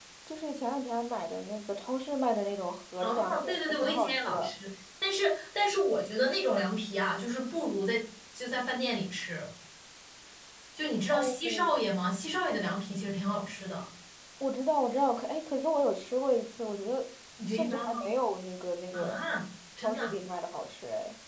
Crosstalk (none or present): present